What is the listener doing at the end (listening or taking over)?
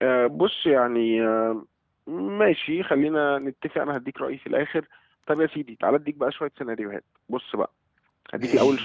listening